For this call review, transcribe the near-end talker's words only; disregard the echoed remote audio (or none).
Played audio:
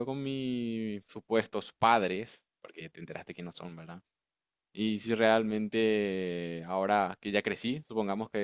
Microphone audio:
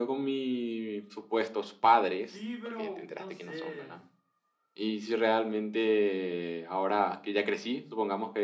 Sí, pero no sé.